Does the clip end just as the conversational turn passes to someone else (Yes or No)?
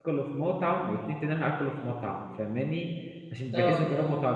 No